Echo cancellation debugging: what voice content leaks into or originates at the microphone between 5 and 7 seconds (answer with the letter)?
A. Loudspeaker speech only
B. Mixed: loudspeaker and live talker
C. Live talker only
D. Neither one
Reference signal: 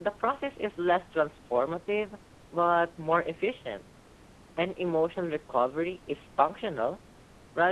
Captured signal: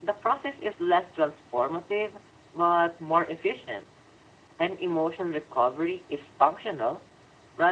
A